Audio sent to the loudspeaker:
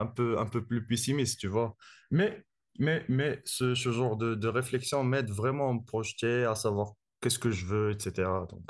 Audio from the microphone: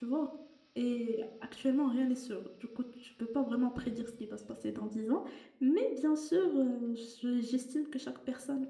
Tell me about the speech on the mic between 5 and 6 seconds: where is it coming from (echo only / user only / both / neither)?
user only